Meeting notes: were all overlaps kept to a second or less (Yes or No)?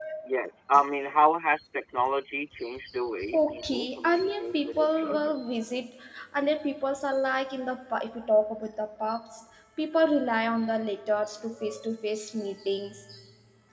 No